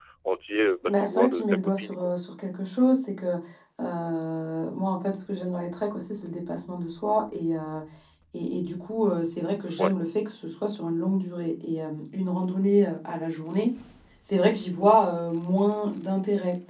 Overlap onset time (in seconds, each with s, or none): 0.9 s